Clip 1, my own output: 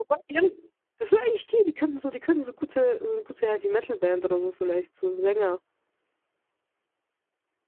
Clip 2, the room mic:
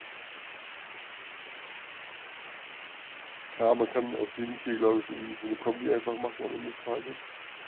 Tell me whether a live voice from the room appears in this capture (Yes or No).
Yes